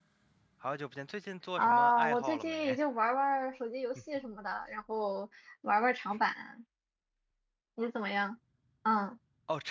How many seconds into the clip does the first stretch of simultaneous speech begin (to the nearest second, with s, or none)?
2 s